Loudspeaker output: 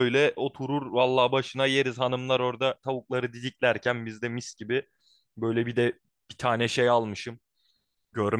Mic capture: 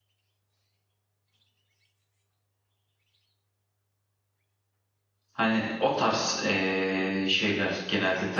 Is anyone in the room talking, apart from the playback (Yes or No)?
Yes